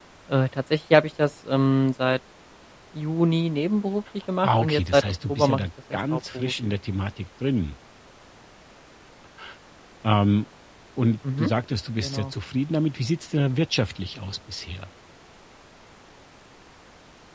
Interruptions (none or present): present